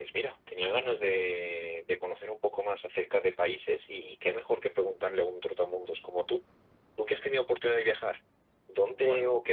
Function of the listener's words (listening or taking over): listening